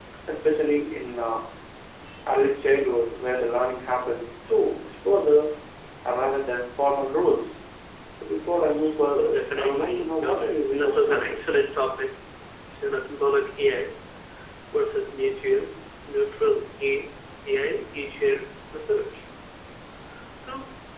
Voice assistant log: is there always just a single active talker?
No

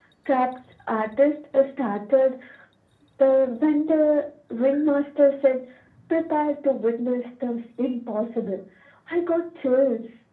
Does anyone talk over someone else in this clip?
No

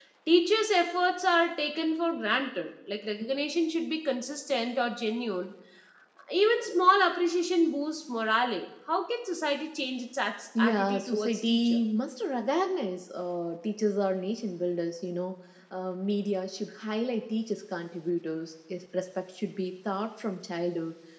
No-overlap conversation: No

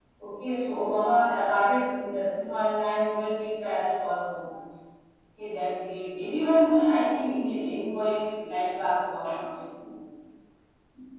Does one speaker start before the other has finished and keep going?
No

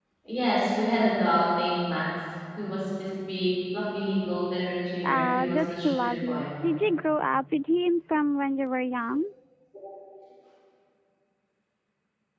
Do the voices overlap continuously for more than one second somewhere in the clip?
Yes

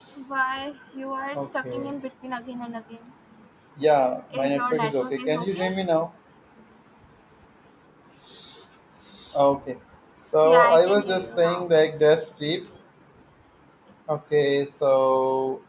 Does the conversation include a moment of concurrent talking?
Yes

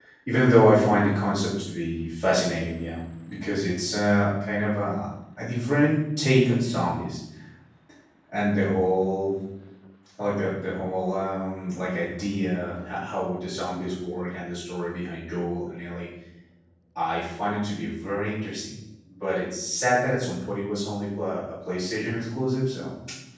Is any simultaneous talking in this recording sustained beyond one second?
No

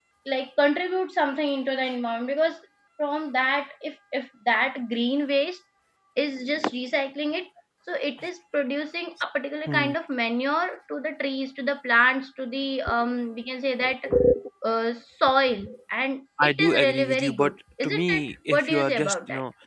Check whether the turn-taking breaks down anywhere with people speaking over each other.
Yes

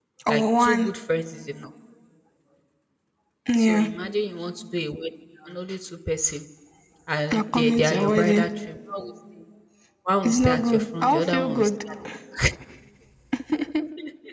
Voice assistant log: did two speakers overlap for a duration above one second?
Yes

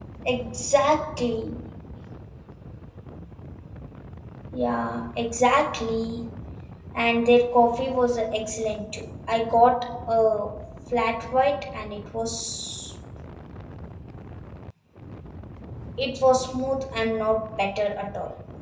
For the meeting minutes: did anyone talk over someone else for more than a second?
No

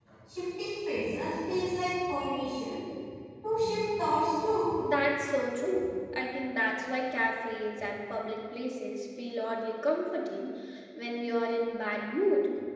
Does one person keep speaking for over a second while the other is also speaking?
No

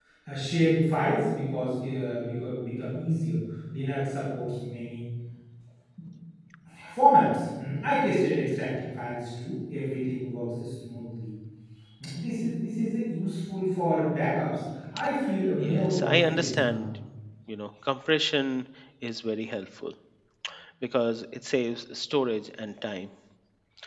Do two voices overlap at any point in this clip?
Yes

